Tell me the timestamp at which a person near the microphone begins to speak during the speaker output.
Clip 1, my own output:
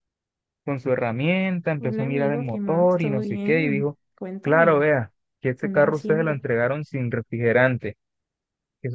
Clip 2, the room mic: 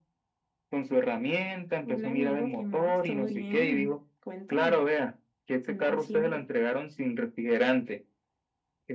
none

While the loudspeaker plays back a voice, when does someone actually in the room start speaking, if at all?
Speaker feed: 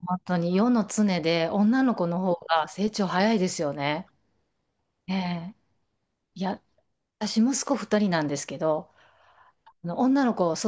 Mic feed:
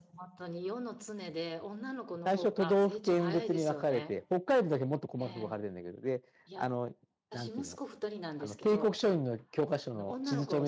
2.2 s

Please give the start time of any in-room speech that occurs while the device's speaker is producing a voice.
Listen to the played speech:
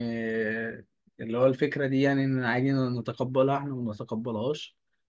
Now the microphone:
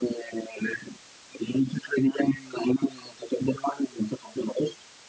none

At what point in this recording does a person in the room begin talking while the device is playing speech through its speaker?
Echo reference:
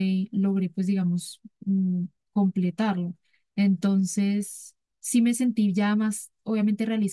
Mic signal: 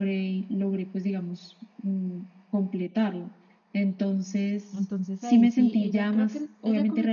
4.7 s

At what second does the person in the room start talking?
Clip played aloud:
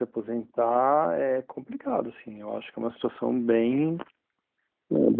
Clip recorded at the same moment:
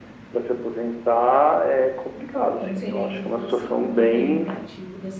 2.5 s

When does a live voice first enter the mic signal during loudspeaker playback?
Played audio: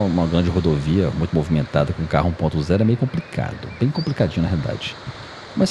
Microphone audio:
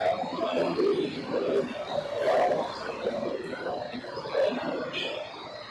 none

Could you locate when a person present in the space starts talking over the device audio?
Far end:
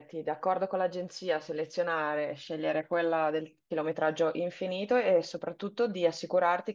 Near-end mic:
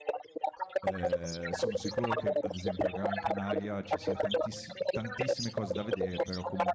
0.8 s

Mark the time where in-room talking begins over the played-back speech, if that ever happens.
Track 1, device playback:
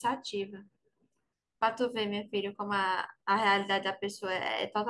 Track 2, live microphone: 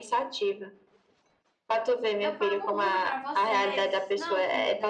2.2 s

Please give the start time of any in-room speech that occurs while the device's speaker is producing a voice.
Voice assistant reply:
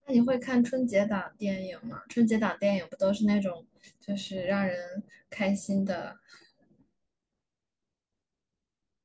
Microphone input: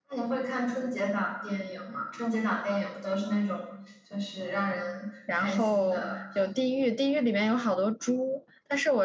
5.3 s

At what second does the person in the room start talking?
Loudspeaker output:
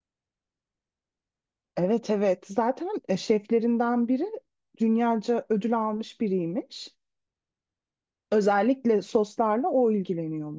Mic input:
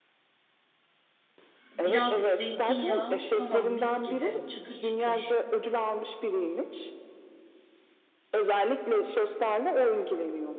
1.7 s

